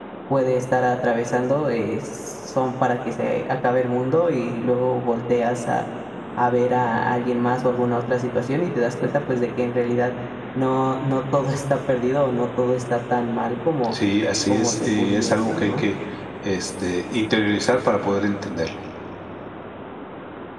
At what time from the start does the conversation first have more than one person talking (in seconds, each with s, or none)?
14.5 s